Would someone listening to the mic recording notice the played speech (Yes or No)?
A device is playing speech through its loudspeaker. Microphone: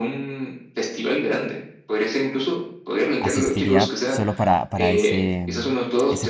Yes